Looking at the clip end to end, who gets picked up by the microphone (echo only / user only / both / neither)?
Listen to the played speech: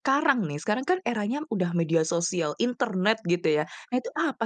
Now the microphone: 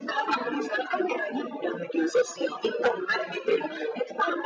echo only